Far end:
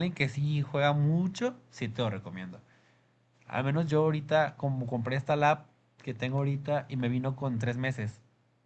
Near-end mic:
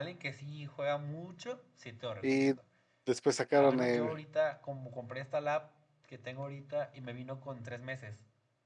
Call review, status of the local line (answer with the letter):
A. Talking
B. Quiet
A